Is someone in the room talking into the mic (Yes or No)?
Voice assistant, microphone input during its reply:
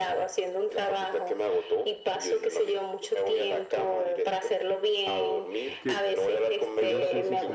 Yes